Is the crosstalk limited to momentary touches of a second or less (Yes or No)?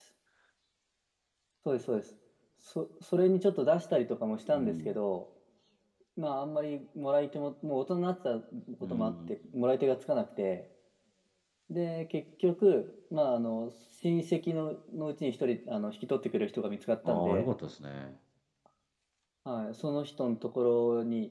Yes